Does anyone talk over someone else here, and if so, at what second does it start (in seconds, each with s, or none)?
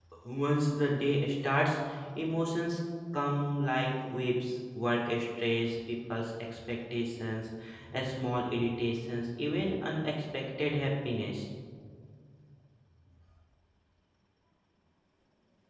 none